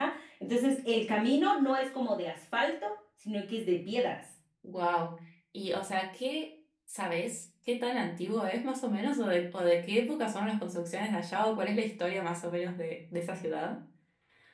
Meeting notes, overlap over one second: none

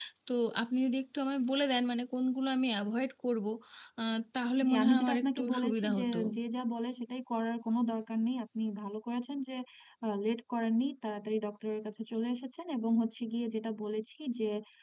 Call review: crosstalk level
present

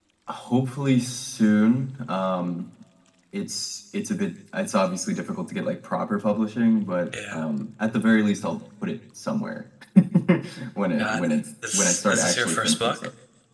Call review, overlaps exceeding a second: present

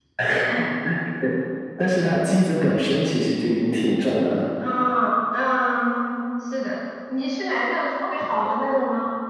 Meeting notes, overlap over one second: none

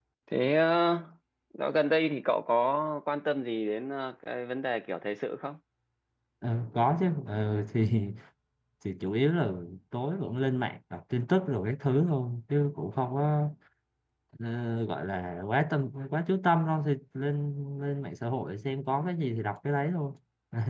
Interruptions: none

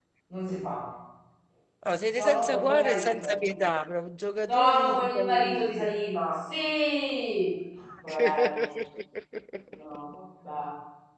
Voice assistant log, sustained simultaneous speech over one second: present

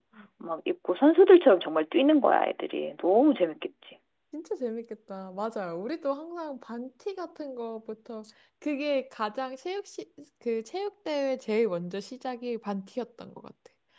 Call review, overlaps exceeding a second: none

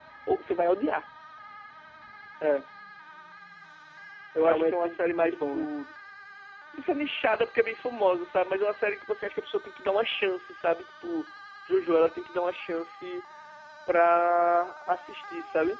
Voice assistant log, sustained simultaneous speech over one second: present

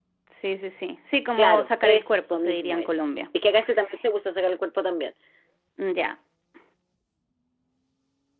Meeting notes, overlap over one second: present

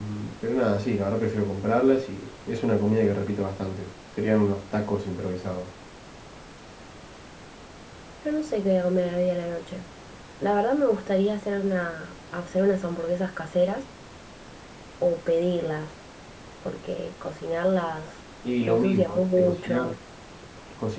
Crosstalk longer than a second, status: present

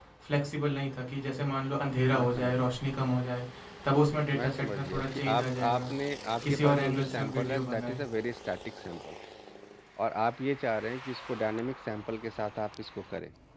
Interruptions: present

